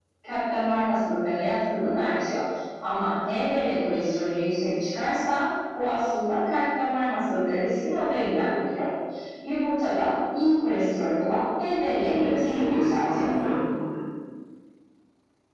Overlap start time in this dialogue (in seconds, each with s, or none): 12.0 s